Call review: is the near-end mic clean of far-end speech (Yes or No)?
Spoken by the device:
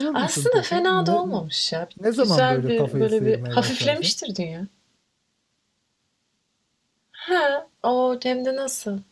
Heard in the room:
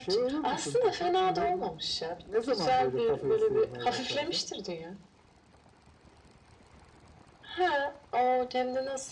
No